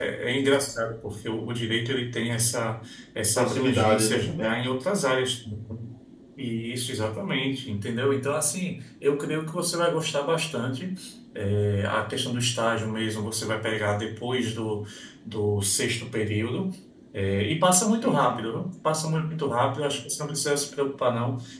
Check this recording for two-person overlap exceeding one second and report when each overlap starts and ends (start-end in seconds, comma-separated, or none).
3.4-4.5